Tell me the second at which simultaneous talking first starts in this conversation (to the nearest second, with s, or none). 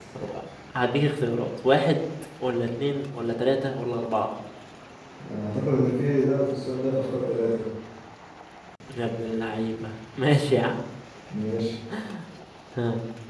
none